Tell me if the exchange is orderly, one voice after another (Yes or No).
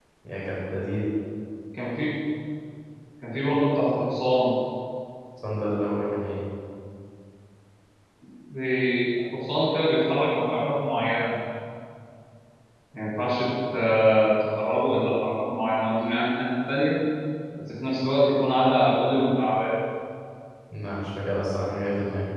Yes